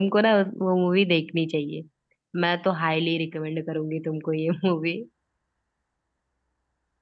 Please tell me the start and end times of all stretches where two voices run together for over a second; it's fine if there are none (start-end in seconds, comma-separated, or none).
none